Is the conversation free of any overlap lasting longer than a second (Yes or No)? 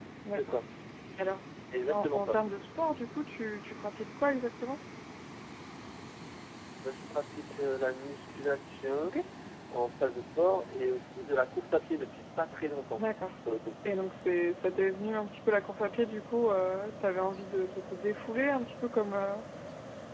Yes